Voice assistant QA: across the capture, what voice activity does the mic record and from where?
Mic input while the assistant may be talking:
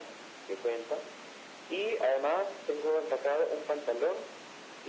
echo only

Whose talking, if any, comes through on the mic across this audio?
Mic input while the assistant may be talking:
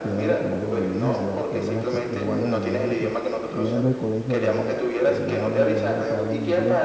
both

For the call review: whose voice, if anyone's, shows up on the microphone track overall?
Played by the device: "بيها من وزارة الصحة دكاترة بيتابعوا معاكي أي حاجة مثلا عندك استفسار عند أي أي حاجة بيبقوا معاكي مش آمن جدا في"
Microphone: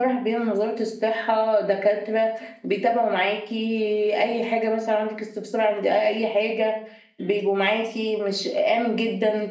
echo only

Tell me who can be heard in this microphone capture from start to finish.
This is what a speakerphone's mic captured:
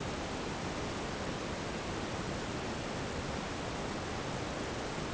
neither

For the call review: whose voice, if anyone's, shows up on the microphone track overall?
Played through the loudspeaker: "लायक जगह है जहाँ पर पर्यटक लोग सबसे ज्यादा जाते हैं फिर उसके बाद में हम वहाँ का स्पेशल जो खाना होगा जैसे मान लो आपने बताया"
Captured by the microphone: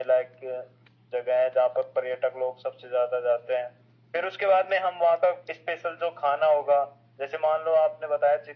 echo only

